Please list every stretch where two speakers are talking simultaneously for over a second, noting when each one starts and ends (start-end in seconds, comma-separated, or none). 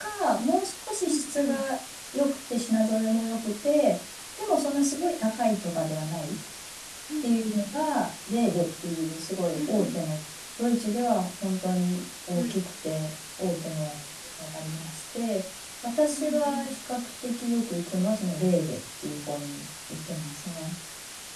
none